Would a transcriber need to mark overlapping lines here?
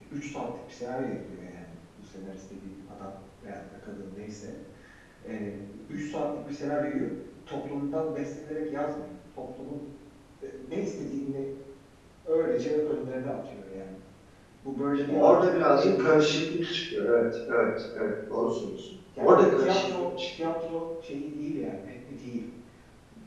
Yes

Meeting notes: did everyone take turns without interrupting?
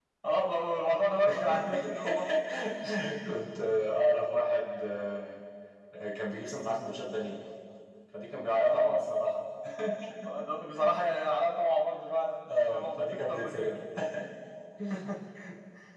No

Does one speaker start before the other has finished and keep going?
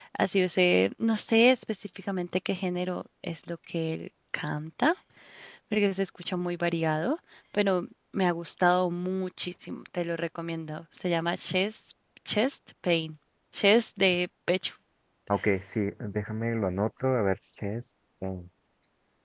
No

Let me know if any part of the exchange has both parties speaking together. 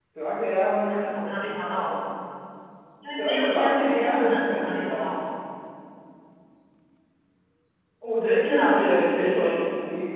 Yes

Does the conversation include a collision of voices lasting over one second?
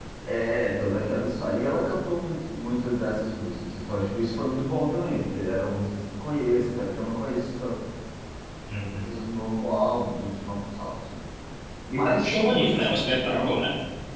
Yes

